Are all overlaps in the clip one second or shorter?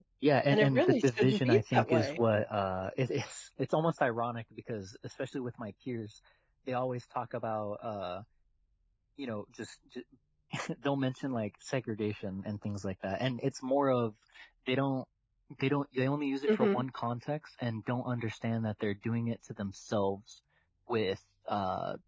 No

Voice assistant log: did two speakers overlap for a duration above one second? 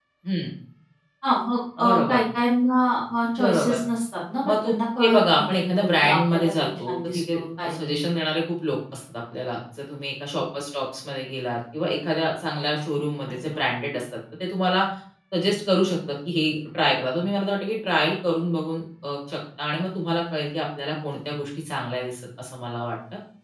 Yes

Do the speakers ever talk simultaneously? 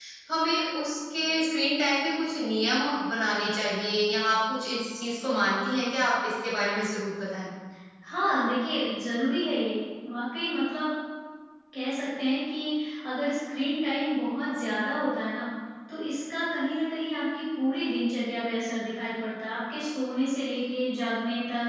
No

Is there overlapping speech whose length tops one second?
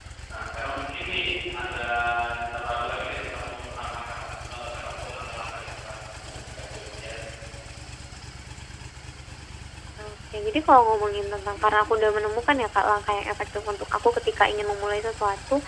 No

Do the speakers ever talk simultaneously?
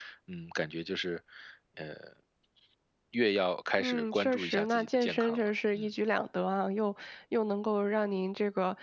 Yes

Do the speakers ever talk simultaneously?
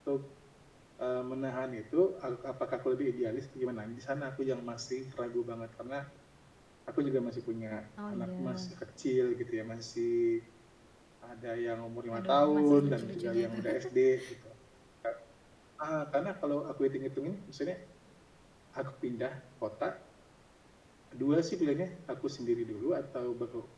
Yes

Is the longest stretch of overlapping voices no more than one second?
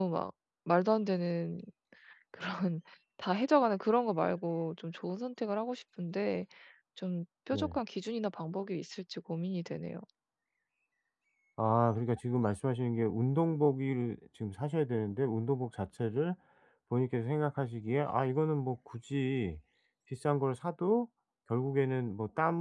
Yes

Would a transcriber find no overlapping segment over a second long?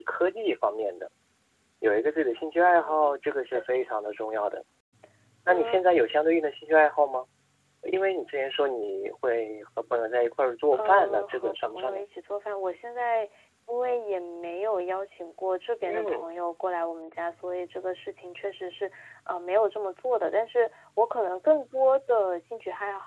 No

